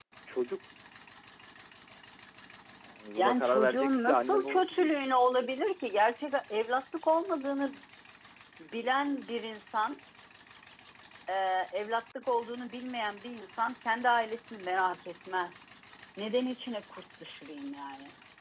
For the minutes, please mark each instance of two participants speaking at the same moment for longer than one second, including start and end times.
3.2-4.9

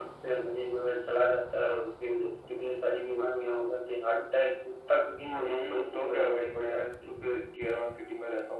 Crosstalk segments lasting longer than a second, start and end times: 5.3-7.2

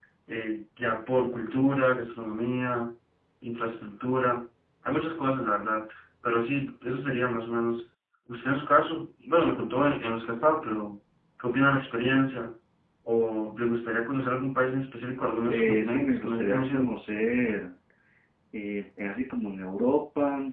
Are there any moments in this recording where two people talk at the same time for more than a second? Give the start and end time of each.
15.5-16.9

